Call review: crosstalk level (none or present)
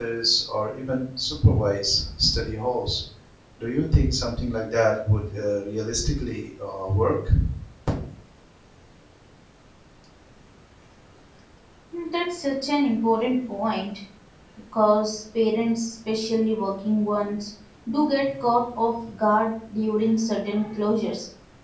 none